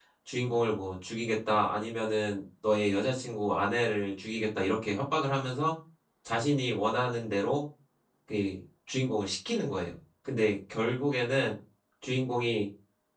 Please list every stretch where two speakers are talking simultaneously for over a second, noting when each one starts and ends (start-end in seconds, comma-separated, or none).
none